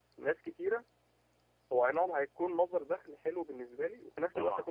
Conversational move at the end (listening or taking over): listening